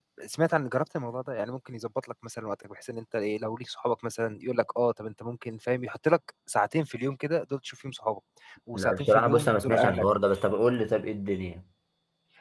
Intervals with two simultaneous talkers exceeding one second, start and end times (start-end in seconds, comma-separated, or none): 8.7-10.1